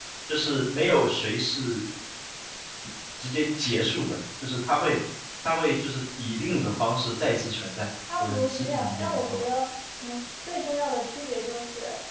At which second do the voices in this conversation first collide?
8.0 s

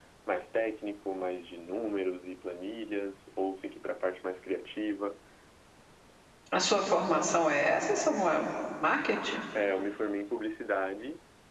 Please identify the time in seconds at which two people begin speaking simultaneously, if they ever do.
none

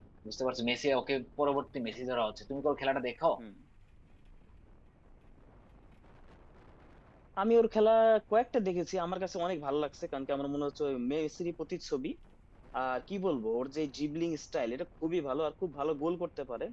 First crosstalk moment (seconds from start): none

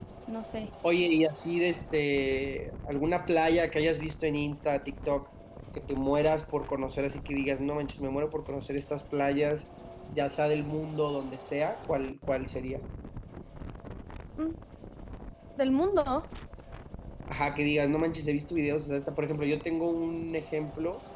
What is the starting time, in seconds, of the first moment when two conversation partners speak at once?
none

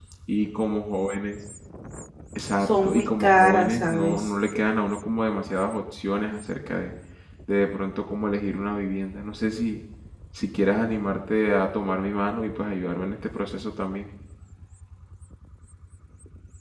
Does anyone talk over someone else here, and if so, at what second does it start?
2.6 s

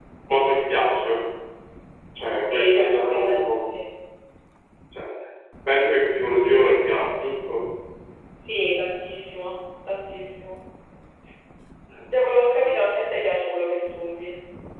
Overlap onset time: 2.4 s

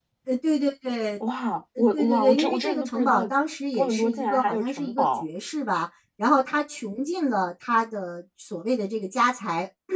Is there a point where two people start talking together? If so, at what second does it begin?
1.8 s

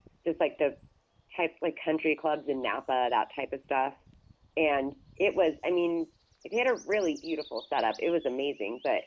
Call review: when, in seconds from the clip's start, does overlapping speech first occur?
none

